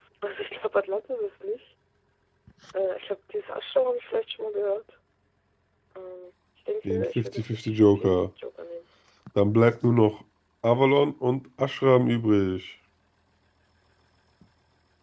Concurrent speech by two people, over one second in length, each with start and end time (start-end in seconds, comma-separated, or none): 6.9-8.2